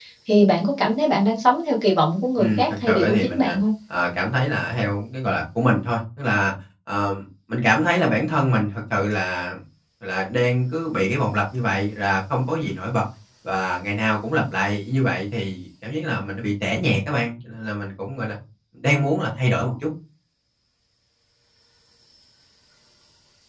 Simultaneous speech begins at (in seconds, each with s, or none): 2.4 s